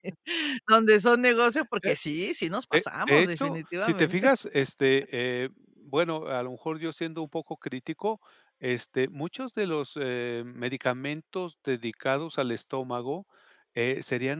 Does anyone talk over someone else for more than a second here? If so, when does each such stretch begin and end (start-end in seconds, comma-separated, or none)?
2.7-4.3